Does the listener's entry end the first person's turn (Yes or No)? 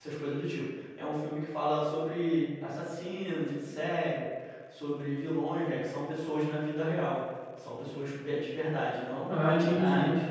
Yes